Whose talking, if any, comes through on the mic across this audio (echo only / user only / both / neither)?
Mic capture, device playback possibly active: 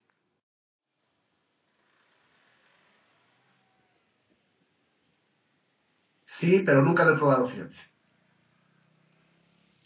user only